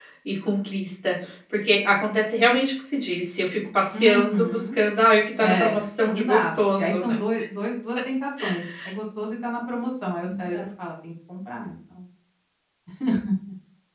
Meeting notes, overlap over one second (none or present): present